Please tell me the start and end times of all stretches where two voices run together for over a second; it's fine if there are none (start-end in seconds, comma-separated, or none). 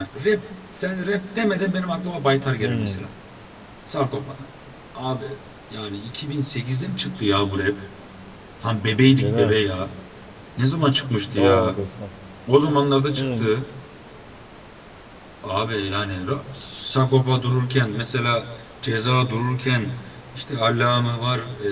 none